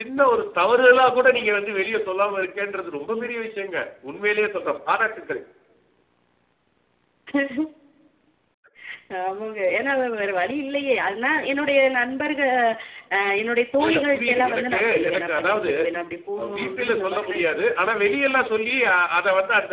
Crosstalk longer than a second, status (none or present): present